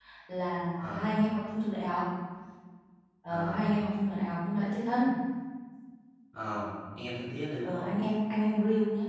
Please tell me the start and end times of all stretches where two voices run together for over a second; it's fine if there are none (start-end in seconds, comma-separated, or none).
none